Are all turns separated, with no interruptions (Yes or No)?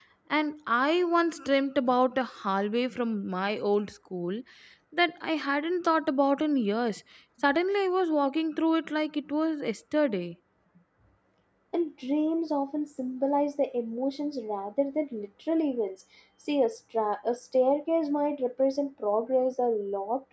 Yes